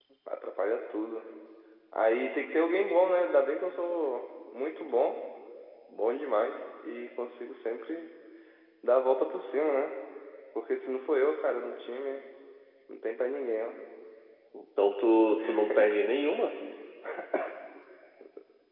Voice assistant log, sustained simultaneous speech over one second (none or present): none